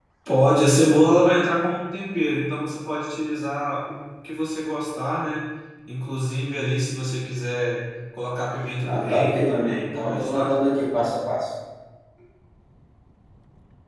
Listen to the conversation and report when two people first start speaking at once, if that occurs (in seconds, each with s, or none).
8.8 s